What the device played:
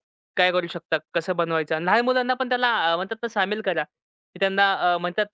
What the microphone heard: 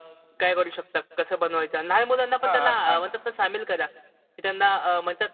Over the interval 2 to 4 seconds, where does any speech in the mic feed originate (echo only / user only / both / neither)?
both